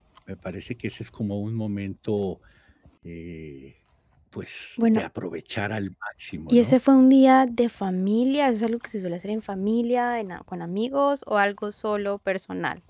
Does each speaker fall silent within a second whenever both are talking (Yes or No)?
Yes